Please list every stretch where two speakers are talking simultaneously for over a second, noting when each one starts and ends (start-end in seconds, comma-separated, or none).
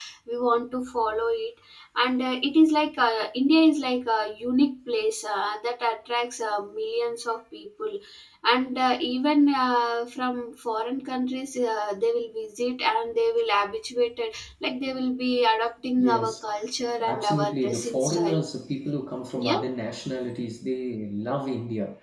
17.1-18.4